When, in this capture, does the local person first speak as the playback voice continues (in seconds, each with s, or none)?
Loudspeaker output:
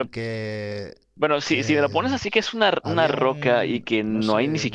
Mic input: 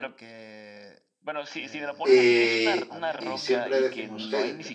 2.0 s